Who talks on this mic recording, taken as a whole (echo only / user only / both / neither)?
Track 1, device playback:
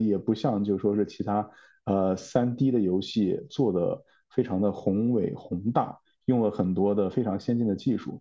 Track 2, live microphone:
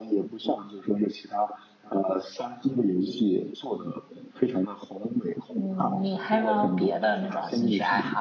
both